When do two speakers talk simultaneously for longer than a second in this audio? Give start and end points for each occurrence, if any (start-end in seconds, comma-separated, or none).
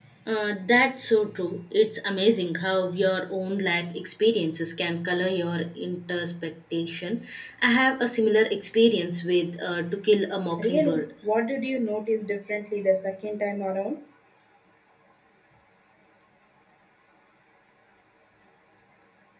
none